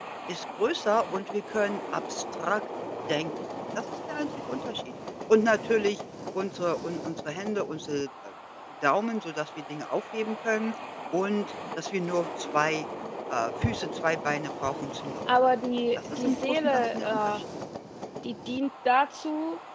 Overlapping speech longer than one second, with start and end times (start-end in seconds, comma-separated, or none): 16.1-17.4